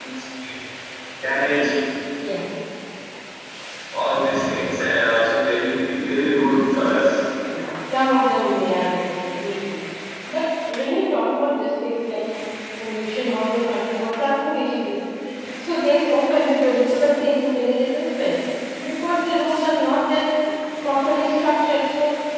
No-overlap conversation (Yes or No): Yes